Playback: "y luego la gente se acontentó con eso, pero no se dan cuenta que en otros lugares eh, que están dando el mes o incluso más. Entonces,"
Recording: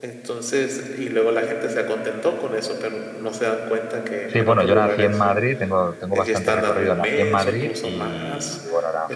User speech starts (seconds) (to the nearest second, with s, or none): 4 s